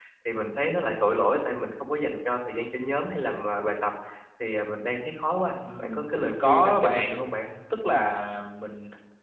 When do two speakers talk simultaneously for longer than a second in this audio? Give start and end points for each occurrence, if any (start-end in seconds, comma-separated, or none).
5.8-7.2